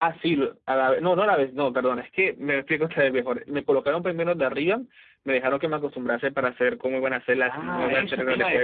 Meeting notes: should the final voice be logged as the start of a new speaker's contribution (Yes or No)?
Yes